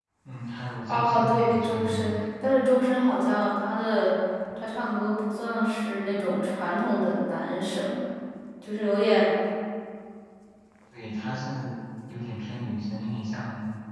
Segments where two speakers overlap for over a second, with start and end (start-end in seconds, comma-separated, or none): 0.9-2.2